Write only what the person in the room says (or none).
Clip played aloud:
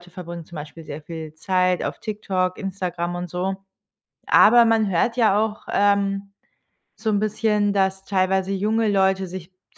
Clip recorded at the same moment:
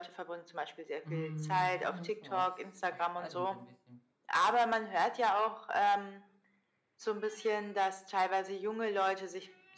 Hm, ja, eine Mischung aus aus beidem so ein bisschen.